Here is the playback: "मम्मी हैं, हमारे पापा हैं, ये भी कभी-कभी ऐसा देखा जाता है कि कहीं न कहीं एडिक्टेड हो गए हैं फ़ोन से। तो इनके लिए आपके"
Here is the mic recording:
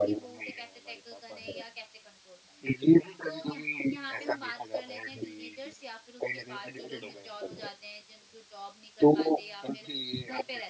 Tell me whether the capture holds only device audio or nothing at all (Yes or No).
No